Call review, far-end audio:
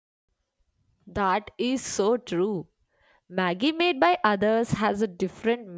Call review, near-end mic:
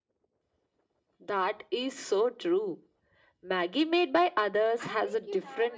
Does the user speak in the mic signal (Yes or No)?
Yes